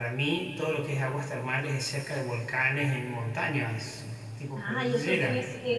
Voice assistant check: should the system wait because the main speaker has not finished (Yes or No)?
No